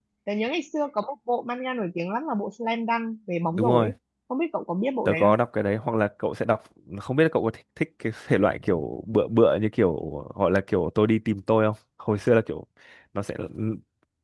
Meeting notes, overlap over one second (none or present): none